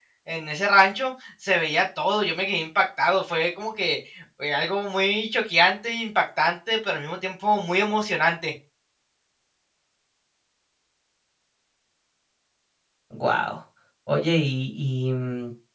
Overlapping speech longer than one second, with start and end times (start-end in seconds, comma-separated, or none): none